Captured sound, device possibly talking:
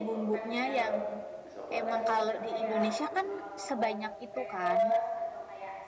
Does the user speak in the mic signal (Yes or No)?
Yes